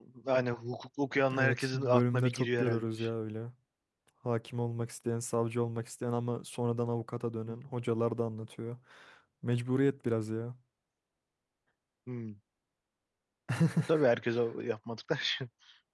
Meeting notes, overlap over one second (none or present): present